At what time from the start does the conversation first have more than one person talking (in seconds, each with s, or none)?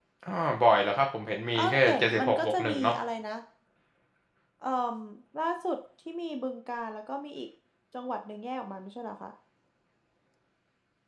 1.5 s